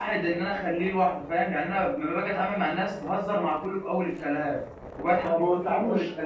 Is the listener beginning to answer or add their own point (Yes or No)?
Yes